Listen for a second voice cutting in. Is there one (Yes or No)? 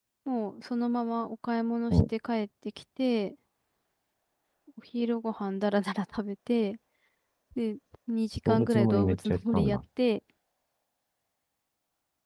Yes